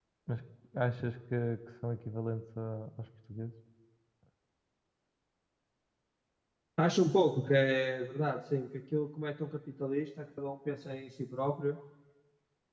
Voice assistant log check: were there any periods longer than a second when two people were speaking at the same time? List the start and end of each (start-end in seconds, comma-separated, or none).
none